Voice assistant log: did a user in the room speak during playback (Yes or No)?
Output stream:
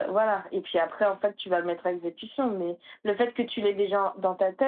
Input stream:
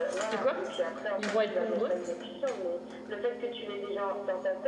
Yes